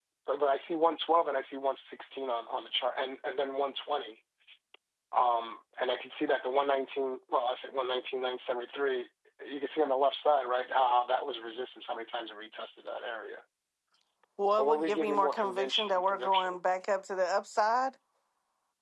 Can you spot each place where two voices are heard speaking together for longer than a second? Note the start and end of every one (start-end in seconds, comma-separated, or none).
14.6-16.6